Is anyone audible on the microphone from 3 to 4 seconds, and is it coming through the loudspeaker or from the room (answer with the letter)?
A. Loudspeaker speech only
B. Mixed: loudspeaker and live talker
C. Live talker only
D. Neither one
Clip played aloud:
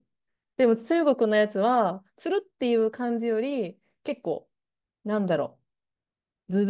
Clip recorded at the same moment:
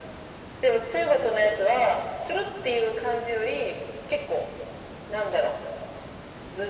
A